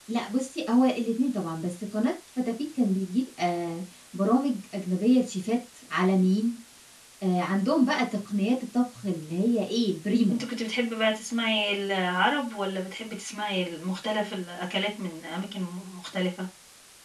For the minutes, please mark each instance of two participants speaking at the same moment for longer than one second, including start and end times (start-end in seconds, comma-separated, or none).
none